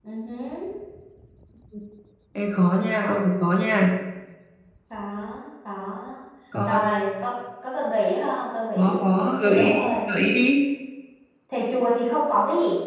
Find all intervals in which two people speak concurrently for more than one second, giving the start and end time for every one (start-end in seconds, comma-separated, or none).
8.8-10.0